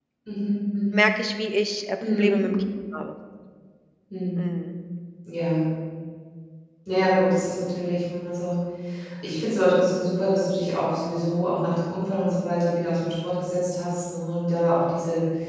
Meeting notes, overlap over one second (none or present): none